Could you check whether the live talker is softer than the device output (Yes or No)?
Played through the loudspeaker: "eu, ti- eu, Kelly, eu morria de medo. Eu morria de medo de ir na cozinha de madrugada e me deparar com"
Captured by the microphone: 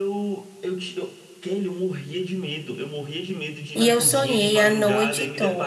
No